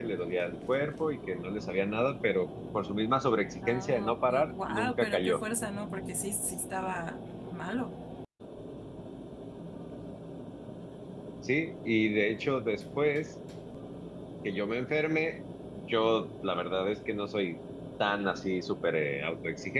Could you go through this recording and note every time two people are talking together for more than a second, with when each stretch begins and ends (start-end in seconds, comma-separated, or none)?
3.7-5.4